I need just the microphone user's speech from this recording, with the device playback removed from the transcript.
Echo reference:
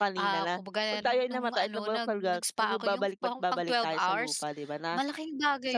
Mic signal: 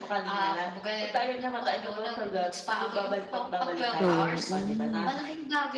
Gawi, hmm.

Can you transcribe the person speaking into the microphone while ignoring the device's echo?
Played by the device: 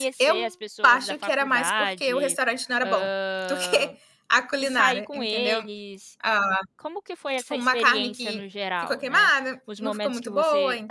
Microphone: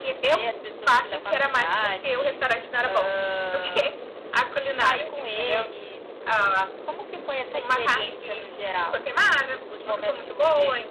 none

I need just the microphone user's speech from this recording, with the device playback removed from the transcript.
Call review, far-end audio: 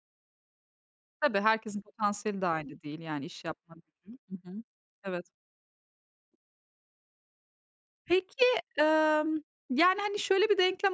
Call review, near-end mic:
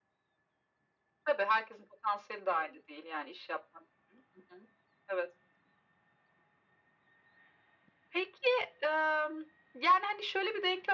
none

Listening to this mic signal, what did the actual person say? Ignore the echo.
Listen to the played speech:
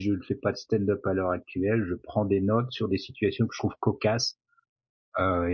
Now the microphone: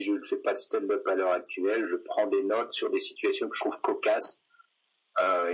none

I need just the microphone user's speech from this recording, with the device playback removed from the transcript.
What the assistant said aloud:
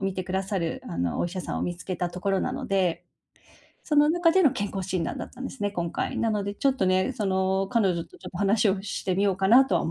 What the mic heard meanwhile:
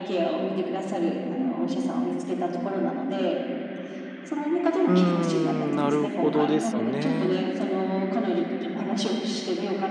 うーん、なるほどですね。

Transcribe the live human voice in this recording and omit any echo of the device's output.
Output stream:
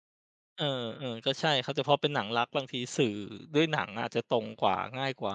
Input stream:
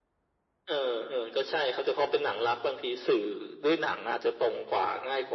none

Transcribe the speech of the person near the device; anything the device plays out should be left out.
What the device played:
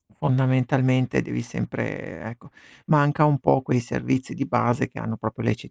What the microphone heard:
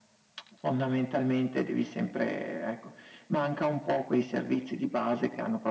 none

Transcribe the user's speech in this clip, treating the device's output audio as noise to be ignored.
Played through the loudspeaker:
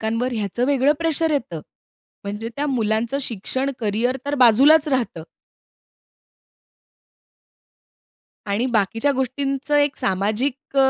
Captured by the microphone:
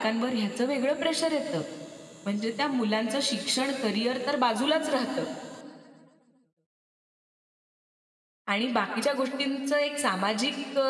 none

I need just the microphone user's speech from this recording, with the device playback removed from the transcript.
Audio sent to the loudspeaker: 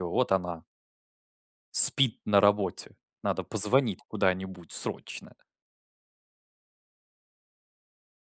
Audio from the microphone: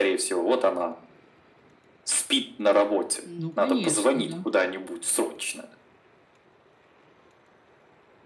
Ну конечно, да.

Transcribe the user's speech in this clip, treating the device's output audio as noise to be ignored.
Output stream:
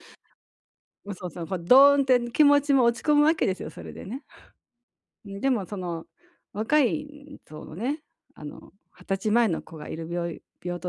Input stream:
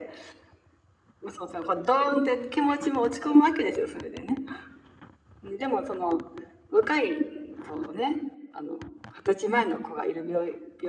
none

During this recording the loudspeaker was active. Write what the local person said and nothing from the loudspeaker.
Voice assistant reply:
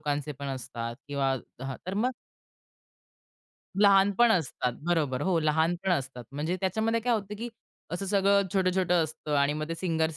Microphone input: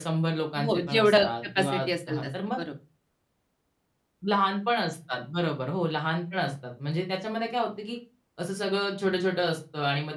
हो, जेवढं कॅपॅसिटी असेल जास्ती. बरोबर.

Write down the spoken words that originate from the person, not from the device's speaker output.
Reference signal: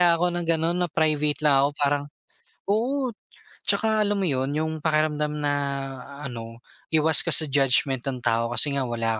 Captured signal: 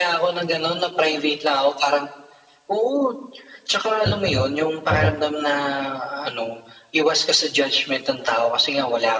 Totoo, oo.

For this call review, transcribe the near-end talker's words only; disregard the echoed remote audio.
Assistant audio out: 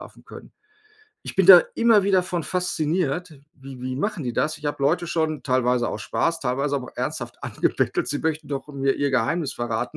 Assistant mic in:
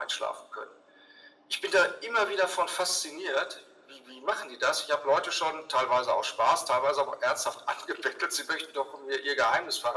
none

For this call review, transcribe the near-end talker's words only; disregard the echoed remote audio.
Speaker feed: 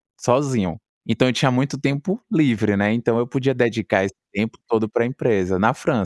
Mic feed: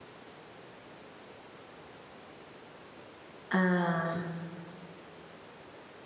Ah.

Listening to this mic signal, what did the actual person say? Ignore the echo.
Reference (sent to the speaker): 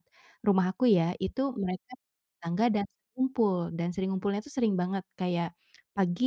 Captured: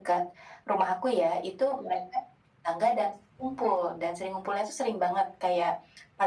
none

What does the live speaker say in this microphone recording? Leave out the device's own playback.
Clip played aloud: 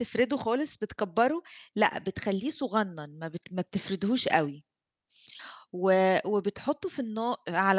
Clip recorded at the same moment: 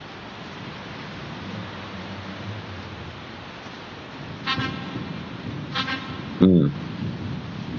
إمم.

